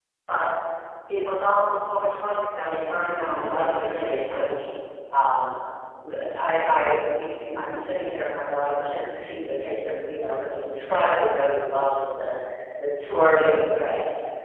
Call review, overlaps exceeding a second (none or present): present